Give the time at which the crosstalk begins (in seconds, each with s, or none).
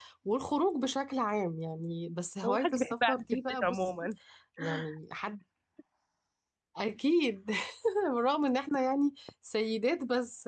2.5 s